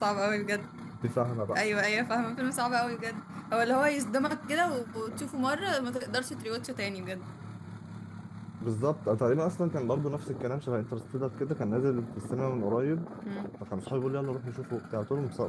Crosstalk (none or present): none